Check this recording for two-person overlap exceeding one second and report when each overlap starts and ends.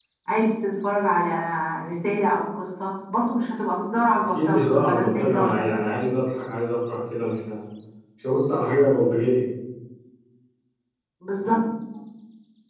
4.3-5.6

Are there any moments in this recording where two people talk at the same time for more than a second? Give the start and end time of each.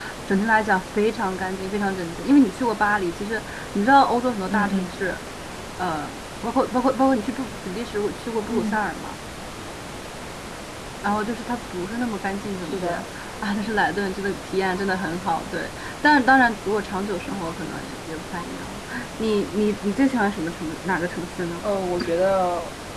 none

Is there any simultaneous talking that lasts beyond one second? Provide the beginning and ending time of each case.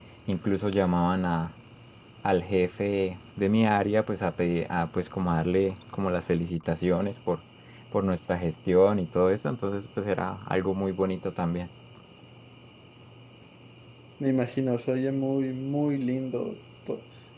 none

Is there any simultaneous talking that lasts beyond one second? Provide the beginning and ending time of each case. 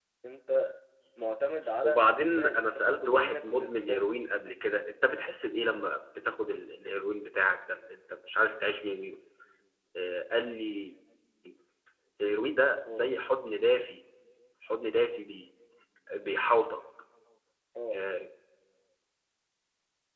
1.8-4.1

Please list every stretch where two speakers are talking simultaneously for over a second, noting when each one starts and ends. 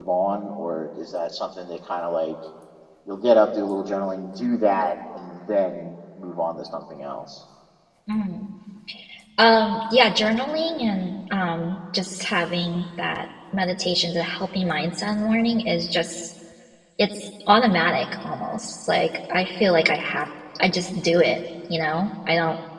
none

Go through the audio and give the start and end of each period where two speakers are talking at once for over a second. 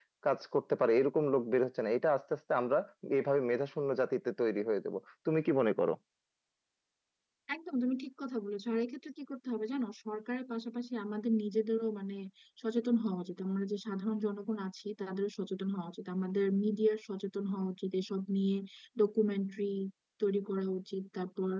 none

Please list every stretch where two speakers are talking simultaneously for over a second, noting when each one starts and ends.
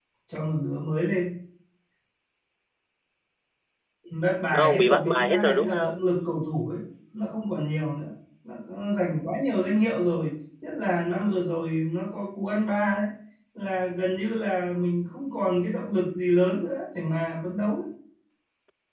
4.5-6.1

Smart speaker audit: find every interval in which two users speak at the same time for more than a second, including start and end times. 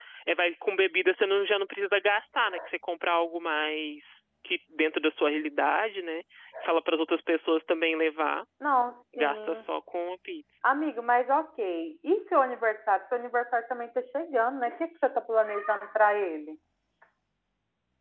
none

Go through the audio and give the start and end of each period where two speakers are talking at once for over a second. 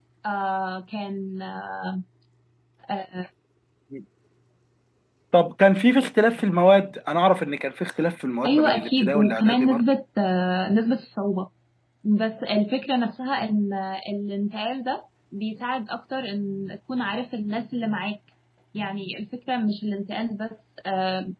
8.4-9.8

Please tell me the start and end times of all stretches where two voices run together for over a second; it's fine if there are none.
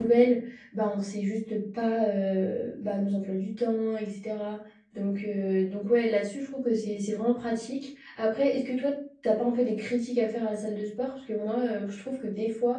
none

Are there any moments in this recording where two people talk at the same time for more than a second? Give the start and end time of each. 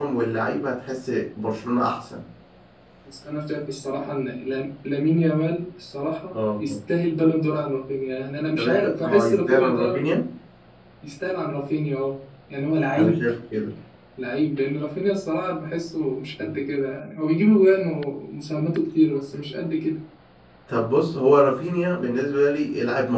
8.6-10.0

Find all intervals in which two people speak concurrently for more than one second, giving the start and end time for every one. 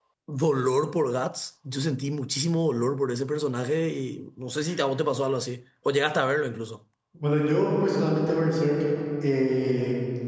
none

